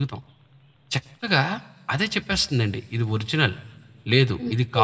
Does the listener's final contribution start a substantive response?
Yes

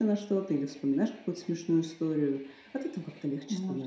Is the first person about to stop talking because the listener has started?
Yes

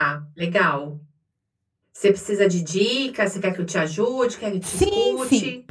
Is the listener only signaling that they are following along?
No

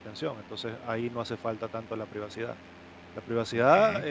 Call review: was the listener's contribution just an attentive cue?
Yes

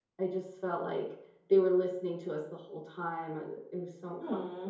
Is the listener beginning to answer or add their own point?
Yes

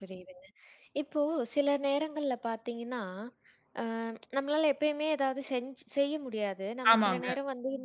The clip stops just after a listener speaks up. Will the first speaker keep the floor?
Yes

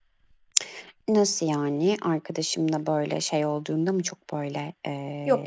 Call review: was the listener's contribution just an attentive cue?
No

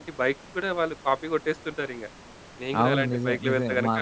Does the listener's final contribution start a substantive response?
Yes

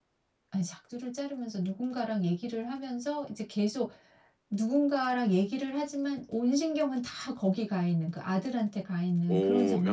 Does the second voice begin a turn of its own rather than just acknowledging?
Yes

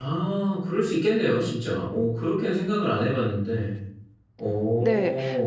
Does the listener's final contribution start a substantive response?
Yes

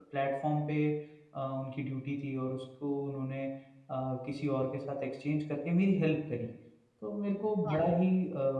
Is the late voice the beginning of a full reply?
No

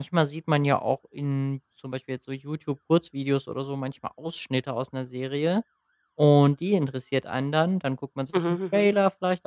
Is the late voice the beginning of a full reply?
No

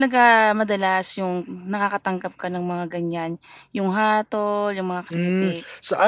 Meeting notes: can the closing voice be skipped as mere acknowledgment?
No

